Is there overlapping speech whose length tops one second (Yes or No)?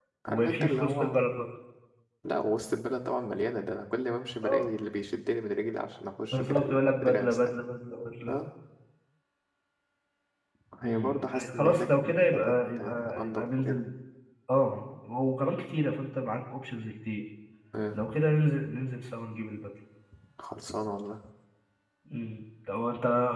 Yes